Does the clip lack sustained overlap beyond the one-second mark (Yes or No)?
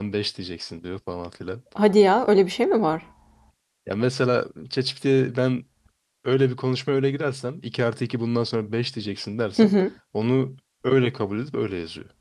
Yes